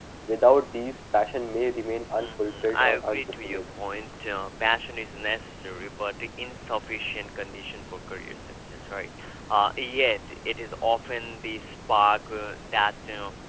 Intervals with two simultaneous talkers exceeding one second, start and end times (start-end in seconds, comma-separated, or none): 2.2-3.7